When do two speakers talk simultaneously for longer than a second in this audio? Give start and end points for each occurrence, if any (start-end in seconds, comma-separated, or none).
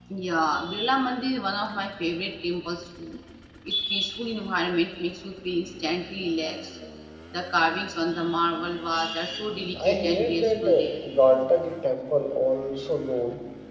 9.8-11.0